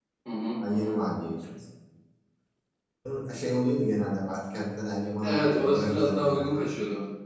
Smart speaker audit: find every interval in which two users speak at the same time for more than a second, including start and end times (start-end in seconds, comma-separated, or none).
5.2-6.6